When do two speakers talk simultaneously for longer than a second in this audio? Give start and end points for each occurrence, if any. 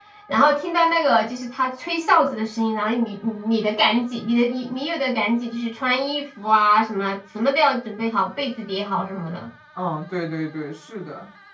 none

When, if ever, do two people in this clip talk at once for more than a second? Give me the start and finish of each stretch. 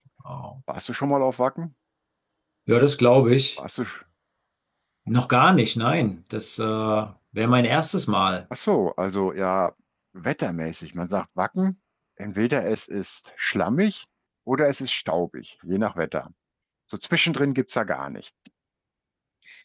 none

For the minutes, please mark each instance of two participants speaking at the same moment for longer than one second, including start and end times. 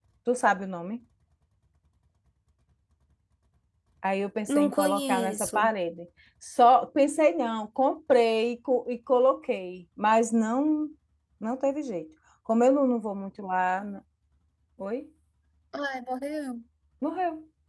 4.5-5.7

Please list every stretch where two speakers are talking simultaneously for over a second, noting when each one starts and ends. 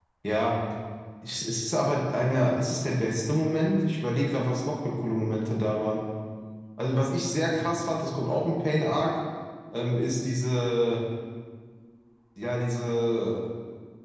none

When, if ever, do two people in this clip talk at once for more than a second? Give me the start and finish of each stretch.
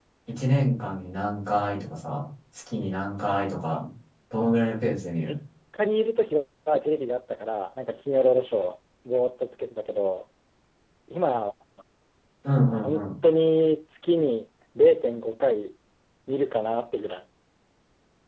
none

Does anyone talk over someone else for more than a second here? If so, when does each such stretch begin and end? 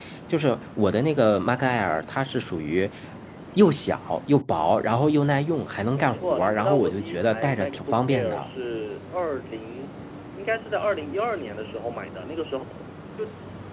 6.0-8.5

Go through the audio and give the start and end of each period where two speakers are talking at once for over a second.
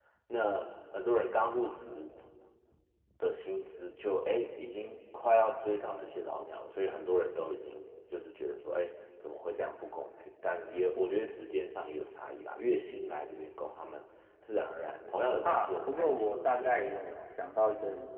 15.4-17.2

